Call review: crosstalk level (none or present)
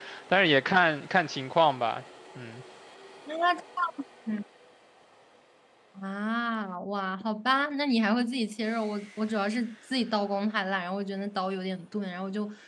none